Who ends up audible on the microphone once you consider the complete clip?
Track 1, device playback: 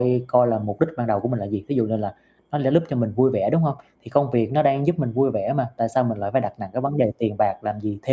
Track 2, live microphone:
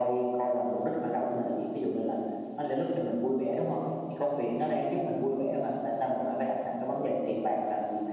echo only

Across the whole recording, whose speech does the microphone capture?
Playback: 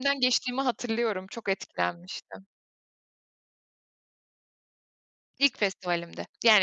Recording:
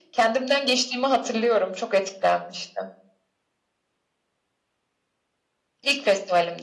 echo only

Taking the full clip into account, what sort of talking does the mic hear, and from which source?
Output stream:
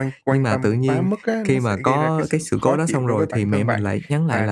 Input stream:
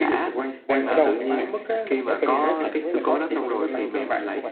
both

